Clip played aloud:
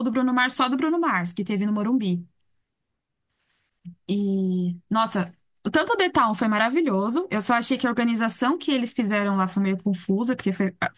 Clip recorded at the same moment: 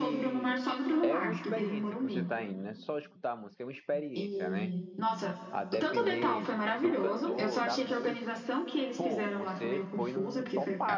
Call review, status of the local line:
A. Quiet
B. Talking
B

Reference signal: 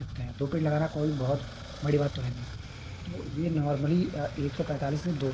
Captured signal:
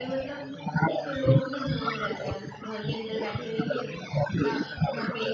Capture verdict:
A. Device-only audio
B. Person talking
B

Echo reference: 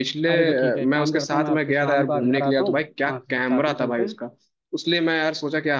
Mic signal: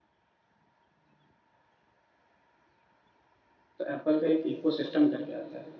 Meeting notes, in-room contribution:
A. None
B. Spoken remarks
B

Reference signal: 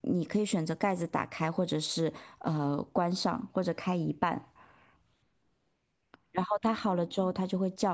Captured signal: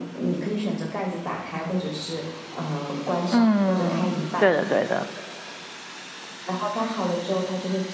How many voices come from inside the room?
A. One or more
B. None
A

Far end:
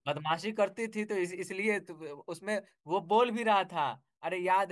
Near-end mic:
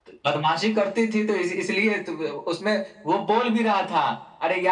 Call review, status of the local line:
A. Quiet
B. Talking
A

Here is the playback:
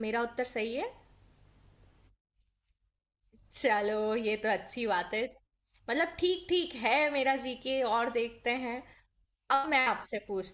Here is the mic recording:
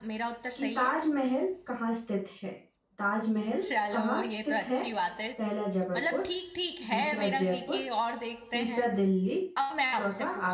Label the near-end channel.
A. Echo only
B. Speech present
B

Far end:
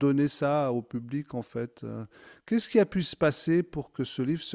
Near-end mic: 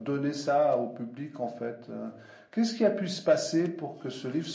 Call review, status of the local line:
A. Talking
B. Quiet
B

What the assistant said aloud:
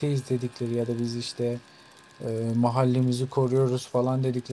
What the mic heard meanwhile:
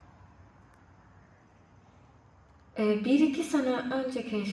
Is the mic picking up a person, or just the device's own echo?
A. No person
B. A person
B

